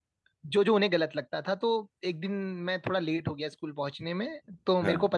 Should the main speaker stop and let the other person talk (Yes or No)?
No